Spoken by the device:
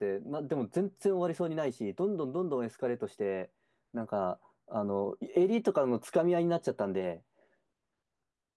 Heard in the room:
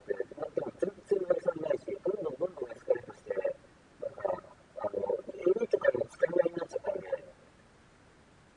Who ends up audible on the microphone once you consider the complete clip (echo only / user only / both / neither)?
echo only